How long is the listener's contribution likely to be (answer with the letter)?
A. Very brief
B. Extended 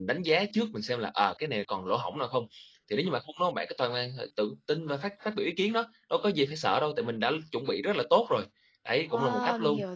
B